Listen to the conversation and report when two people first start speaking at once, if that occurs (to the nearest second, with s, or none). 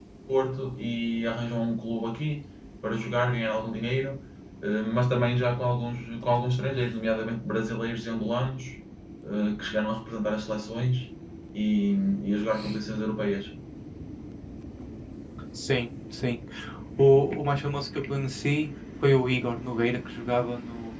none